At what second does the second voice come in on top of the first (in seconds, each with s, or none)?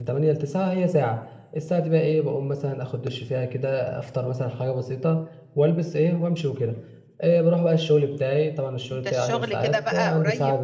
8.9 s